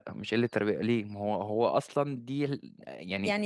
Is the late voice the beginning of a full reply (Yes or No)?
Yes